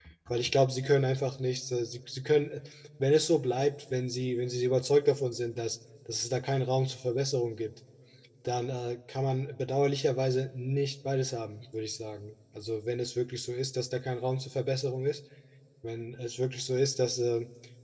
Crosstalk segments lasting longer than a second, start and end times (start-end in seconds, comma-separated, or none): none